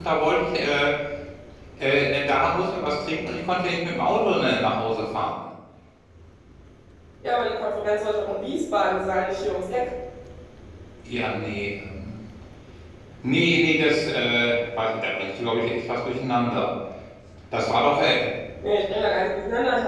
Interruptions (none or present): none